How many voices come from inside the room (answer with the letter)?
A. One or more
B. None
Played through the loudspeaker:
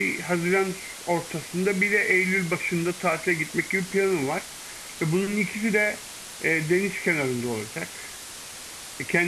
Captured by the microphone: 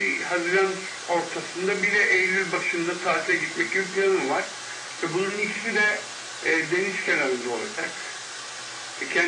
B